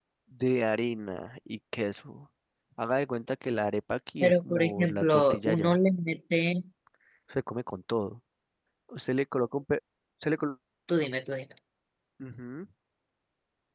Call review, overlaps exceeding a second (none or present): present